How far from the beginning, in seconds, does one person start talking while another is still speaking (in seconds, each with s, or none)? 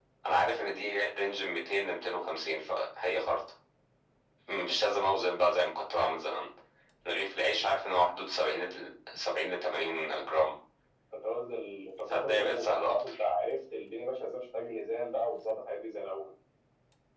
12.0 s